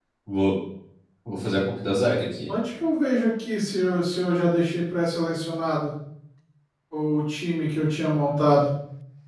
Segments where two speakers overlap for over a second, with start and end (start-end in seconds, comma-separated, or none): none